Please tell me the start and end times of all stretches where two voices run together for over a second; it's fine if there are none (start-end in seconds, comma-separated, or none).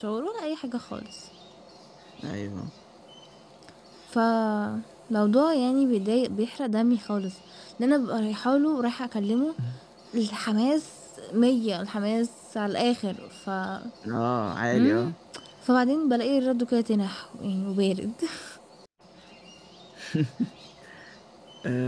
none